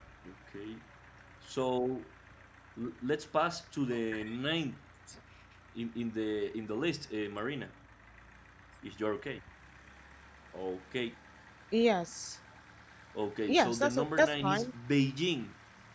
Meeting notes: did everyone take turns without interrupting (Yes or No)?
No